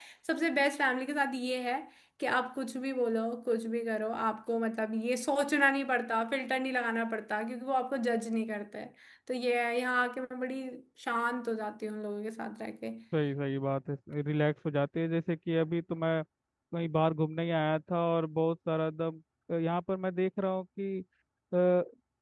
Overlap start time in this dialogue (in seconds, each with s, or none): none